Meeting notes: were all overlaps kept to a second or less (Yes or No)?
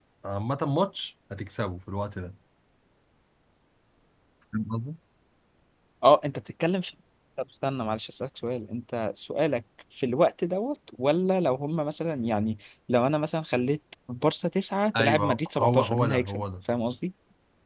No